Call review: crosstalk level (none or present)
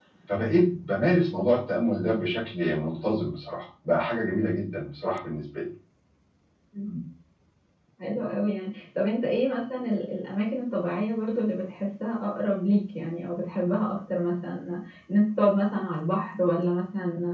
none